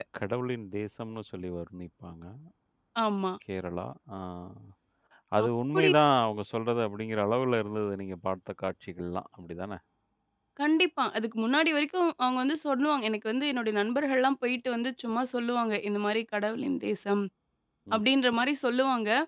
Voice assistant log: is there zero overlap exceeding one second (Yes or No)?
Yes